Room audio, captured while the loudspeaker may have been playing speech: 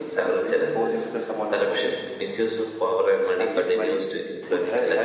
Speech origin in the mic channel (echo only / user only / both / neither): echo only